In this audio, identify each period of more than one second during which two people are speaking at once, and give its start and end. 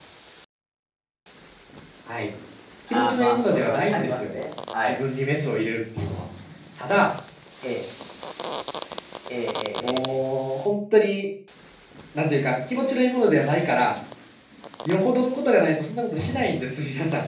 2.9-4.3

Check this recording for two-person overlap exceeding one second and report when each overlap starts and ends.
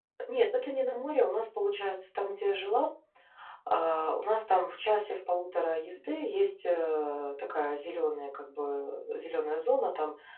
none

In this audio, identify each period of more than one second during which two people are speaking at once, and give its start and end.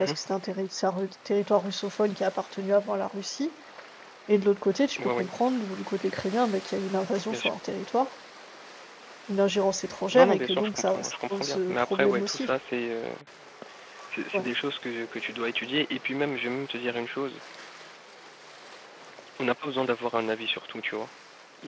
10.1-12.5

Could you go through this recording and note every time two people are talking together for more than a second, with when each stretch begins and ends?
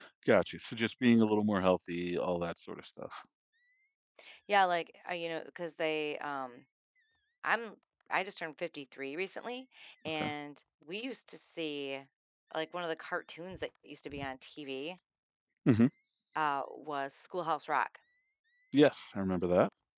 none

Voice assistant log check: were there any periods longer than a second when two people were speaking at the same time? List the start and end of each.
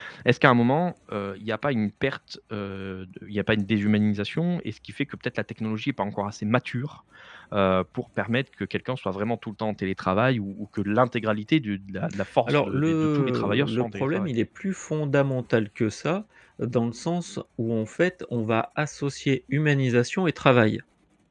12.5-14.3

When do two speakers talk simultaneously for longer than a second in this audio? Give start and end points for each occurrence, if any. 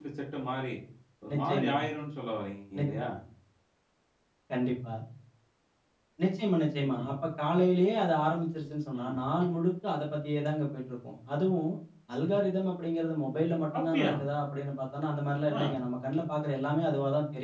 none

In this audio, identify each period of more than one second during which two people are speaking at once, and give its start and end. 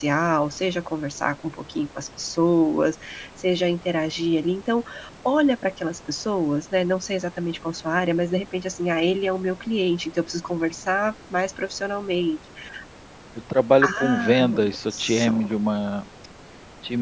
13.8-15.5

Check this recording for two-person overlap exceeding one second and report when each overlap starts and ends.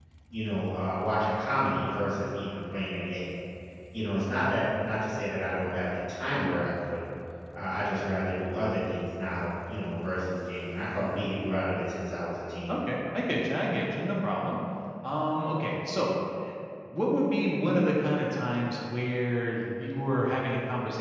none

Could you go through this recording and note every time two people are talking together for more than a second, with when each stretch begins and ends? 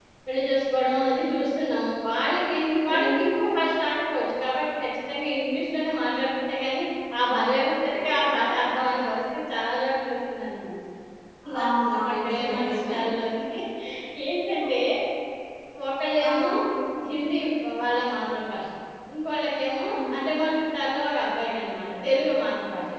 11.6-12.9

